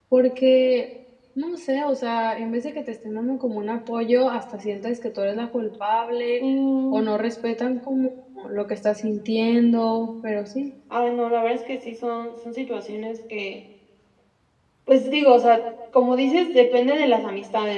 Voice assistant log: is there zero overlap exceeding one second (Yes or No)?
Yes